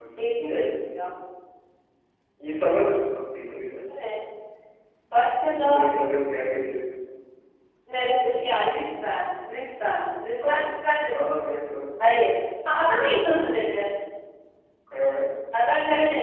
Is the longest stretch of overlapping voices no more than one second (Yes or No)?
Yes